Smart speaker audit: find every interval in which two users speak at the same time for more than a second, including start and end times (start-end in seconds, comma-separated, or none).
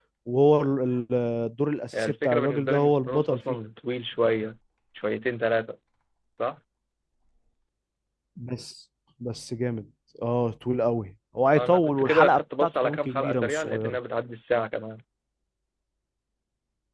2.0-3.6, 11.6-14.0